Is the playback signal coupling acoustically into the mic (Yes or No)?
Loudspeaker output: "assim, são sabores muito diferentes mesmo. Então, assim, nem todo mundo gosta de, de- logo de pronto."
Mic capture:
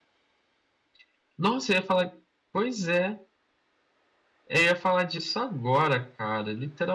No